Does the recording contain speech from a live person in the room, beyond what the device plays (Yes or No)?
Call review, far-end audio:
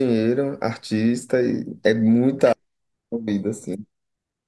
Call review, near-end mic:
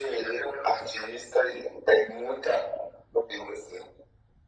No